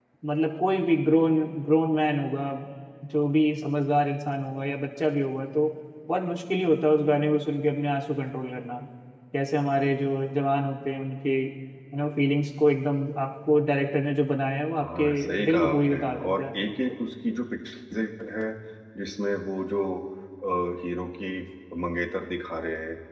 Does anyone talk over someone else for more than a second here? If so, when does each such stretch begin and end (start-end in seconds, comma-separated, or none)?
14.8-16.4